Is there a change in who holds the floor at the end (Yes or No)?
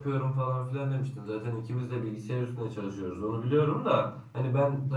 No